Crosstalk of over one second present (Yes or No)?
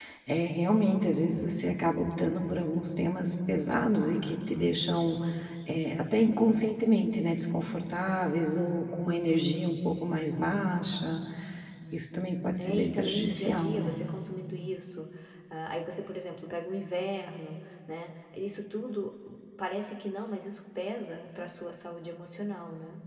Yes